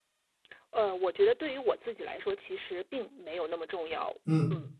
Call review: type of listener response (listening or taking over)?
taking over